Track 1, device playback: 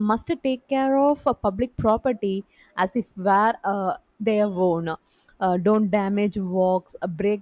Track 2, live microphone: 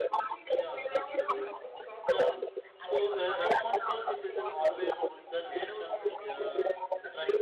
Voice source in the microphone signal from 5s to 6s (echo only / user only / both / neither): both